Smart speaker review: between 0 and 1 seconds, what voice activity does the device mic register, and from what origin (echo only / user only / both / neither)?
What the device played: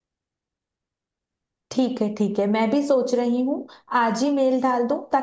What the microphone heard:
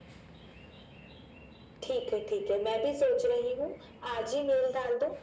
neither